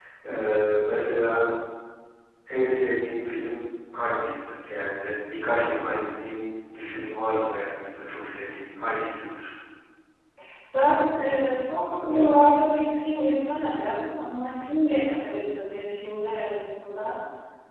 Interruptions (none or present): none